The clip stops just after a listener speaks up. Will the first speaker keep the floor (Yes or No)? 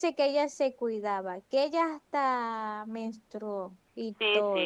No